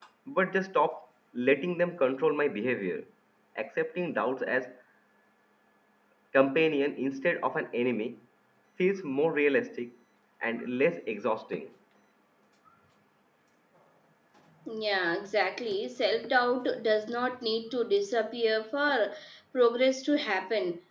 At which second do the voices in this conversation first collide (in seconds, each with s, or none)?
none